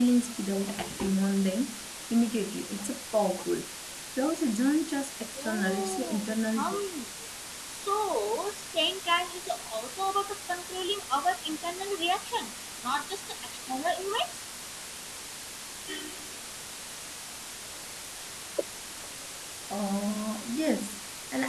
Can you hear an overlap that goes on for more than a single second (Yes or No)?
Yes